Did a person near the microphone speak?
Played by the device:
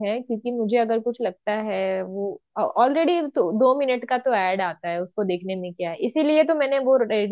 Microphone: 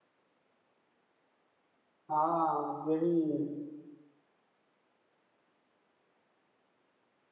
Yes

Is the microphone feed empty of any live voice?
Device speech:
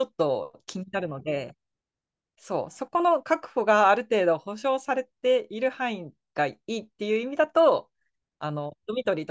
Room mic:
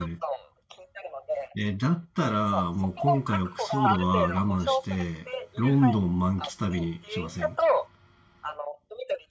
No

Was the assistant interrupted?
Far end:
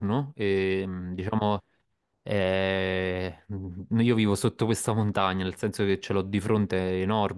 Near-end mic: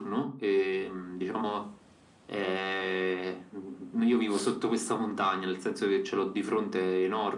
No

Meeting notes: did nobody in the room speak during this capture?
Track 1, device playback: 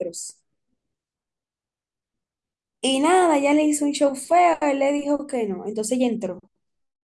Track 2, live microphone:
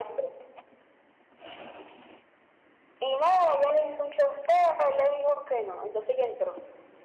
Yes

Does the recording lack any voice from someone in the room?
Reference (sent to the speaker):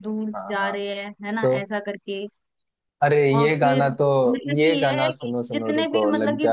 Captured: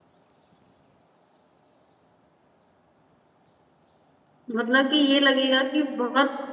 No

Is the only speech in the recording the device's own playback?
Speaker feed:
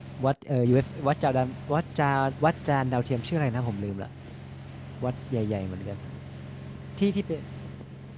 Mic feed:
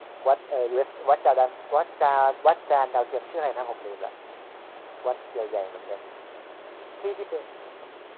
Yes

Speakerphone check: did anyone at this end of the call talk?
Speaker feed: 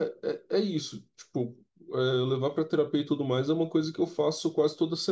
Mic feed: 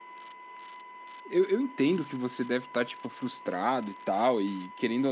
Yes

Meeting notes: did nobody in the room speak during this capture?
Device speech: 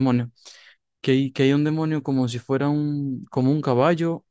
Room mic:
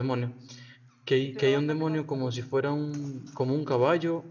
No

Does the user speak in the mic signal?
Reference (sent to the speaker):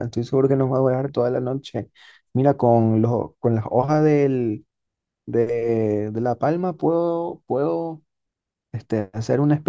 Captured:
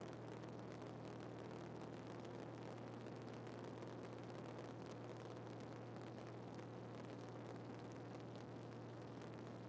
No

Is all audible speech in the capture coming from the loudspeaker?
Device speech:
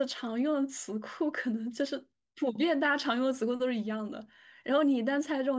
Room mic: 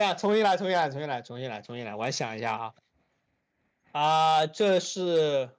No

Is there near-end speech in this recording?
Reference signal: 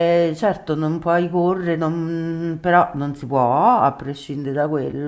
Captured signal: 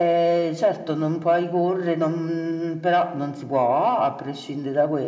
No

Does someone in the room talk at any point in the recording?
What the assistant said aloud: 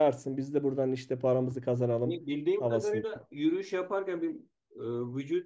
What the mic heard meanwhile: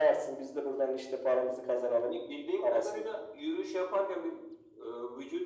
No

